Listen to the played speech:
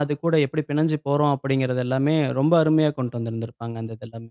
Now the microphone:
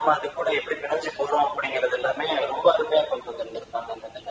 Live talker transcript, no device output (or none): none